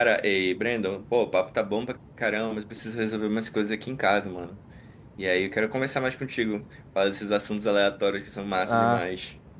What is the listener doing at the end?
taking over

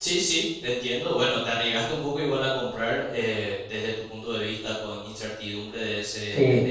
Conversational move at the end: taking over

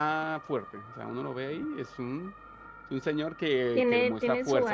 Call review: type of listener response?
taking over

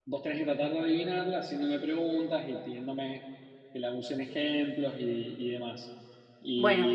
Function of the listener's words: listening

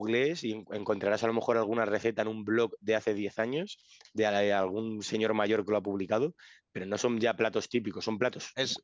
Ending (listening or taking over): listening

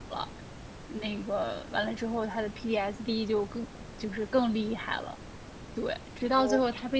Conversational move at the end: listening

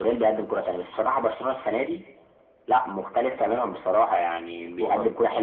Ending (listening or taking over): listening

